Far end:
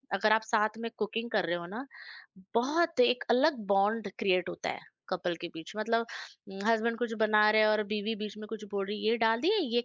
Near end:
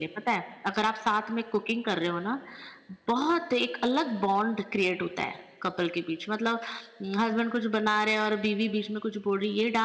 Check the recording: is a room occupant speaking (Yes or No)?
No